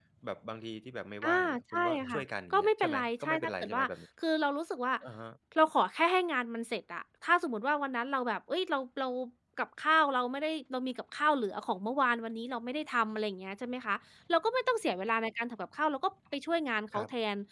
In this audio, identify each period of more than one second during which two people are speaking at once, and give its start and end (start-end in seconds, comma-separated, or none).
1.2-3.8